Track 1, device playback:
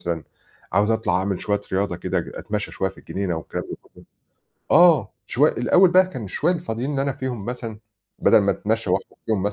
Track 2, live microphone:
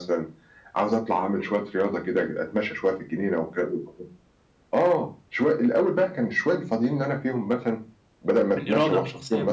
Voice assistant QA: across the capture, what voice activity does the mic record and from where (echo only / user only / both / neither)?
both